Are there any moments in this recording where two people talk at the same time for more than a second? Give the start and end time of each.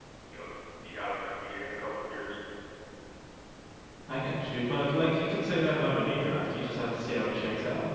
none

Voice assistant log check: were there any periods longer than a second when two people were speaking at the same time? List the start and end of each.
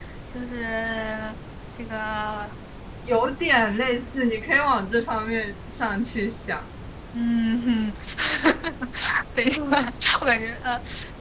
none

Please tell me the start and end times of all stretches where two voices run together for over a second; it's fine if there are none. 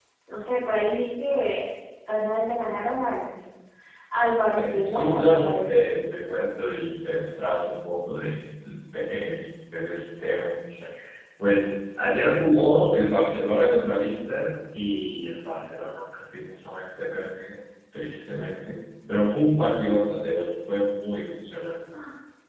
4.5-5.9

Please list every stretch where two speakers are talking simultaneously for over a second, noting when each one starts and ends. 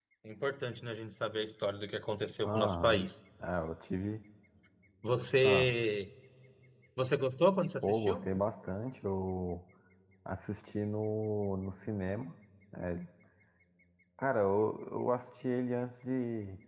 none

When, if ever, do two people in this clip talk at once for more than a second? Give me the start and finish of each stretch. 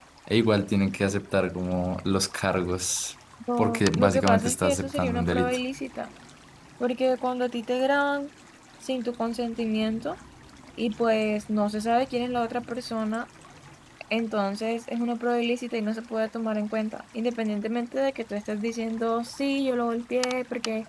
3.6-5.6

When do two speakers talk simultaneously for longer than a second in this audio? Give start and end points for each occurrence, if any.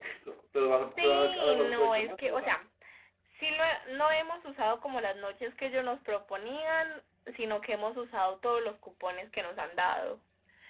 1.0-2.5

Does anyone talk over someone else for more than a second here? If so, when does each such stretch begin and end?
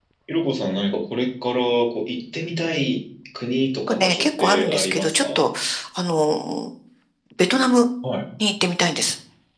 3.9-5.5

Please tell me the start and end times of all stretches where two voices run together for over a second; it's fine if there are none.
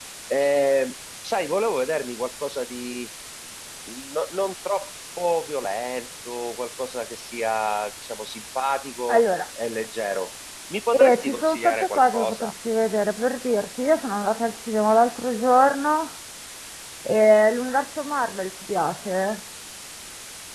10.9-12.5

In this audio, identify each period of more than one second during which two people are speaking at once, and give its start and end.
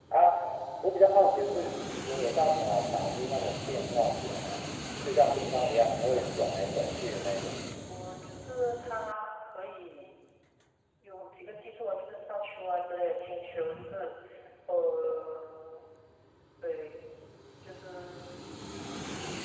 none

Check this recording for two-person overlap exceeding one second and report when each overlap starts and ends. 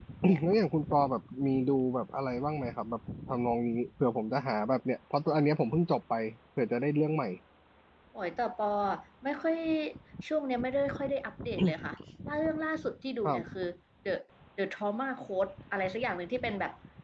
none

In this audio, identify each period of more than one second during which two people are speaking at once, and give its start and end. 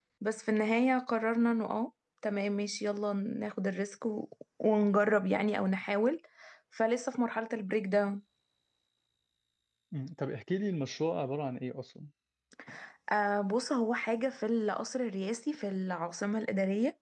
none

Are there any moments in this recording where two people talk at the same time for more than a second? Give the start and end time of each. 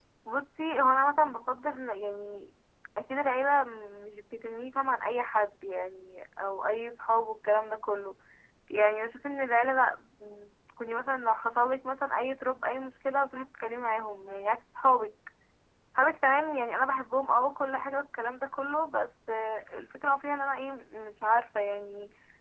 none

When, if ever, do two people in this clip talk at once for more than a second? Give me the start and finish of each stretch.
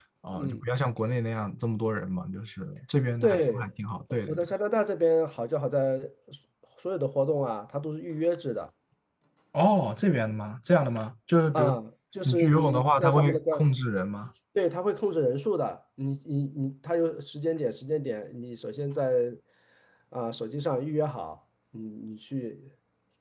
12.2-13.6

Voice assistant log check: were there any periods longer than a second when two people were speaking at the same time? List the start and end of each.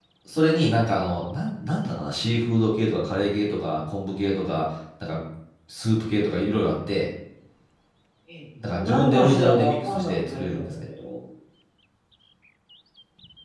8.7-10.7

